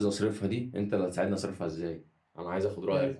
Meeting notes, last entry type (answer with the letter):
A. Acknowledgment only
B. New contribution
A